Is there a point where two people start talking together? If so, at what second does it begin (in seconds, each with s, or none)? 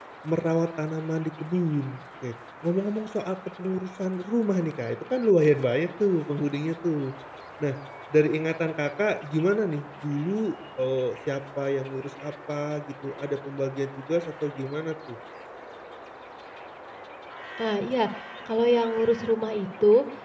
none